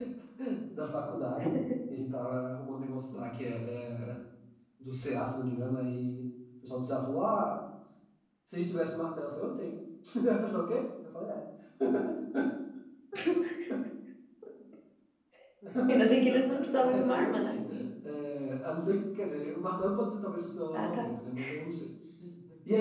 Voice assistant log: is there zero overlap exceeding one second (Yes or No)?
No